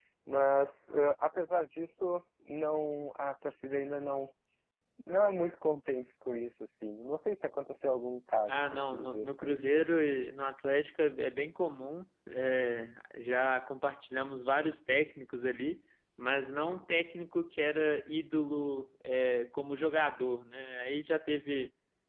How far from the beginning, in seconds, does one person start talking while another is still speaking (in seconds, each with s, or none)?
8.5 s